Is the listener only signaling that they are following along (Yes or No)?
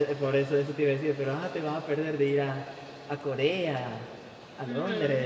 No